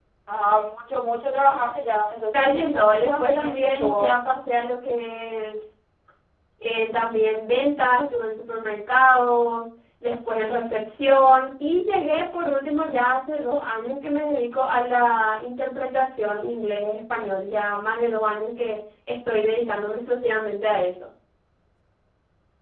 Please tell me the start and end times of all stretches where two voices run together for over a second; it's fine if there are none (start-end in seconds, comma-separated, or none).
2.3-4.1